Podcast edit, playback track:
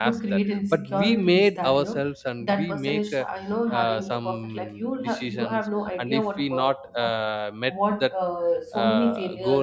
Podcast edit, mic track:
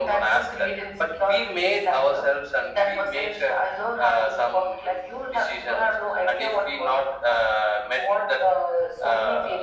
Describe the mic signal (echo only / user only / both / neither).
echo only